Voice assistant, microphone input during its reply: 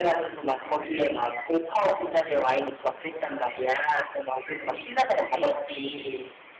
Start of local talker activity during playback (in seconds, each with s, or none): 5.3 s